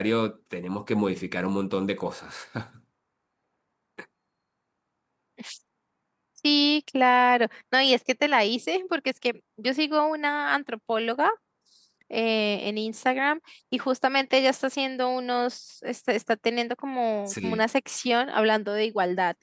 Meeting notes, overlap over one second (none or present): none